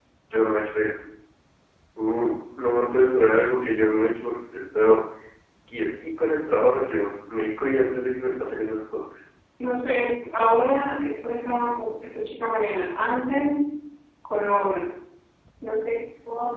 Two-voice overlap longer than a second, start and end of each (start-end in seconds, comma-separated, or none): none